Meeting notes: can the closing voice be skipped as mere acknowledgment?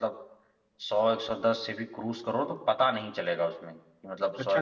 No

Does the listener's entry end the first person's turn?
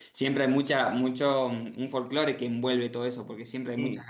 No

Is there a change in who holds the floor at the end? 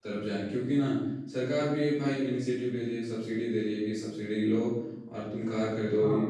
No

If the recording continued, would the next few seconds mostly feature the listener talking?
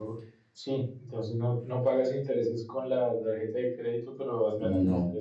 No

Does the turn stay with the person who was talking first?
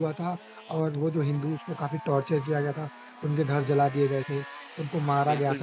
No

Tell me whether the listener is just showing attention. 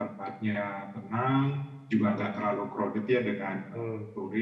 Yes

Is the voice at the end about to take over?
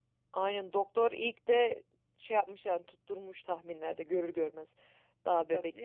Yes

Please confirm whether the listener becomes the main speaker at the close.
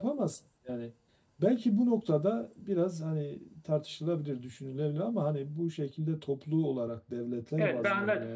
Yes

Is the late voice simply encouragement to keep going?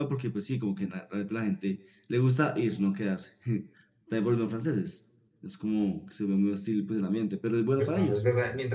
No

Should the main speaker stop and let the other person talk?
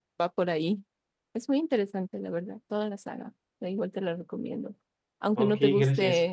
No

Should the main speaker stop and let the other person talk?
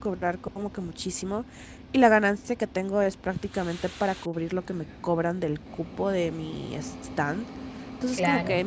No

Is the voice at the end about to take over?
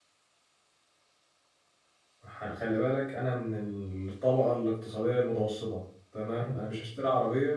No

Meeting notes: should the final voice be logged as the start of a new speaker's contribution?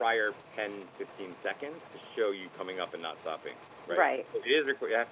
No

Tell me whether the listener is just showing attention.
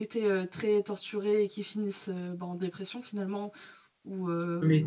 No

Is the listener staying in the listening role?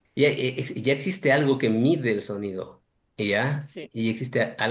Yes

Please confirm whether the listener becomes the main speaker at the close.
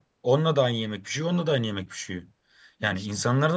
No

